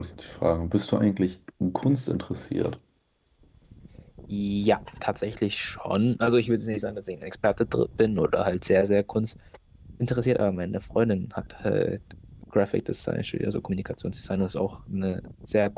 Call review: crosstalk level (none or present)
none